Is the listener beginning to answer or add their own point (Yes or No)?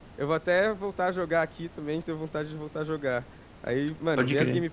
No